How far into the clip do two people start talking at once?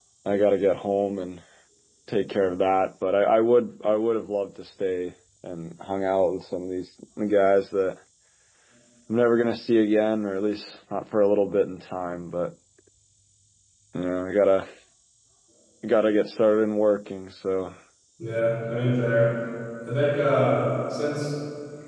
none

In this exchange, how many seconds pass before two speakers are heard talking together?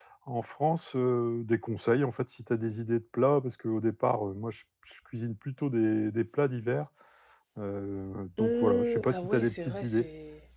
8 s

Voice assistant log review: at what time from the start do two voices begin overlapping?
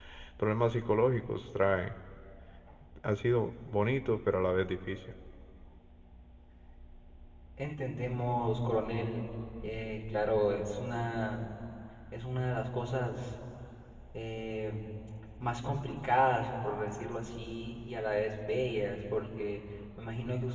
none

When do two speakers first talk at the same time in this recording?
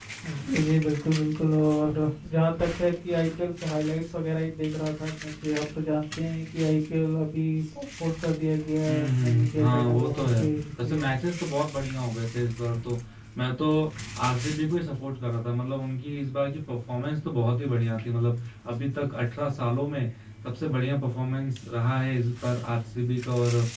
9 s

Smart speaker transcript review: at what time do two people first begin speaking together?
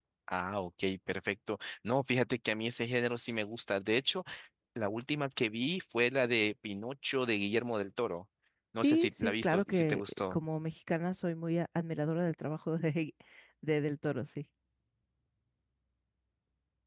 9 s

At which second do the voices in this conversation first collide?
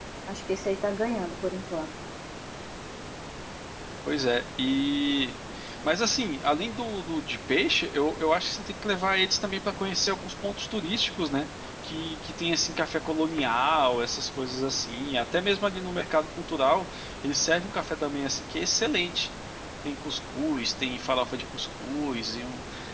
none

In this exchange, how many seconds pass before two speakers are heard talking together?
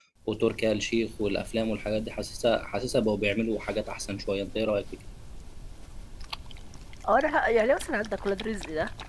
none

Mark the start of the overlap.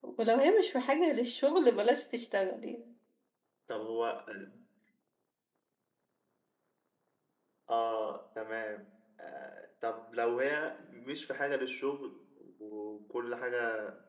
none

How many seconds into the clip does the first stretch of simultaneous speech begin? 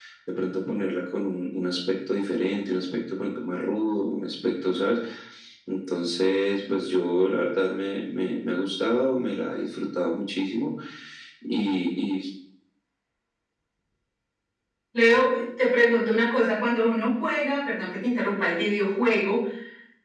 none

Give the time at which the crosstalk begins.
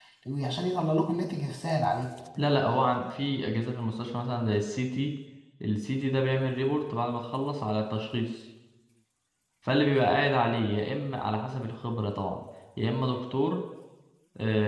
none

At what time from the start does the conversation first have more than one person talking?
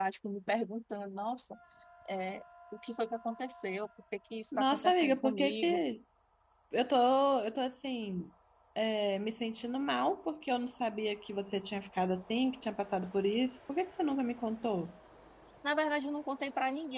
5 s

